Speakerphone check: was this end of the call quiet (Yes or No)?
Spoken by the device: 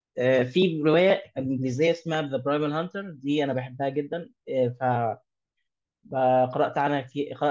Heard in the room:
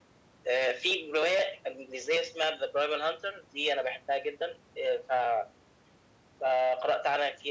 Yes